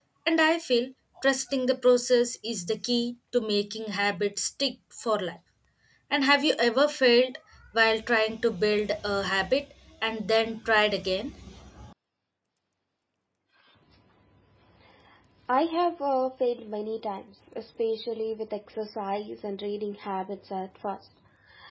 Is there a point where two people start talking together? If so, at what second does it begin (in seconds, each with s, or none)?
none